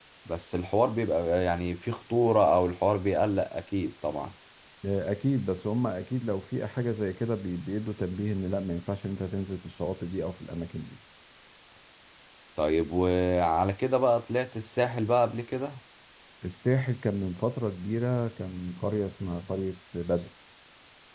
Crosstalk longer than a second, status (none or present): none